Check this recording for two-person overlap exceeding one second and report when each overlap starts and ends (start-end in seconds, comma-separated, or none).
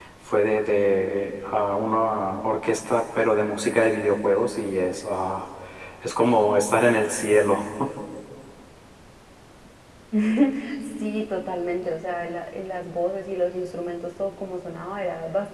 none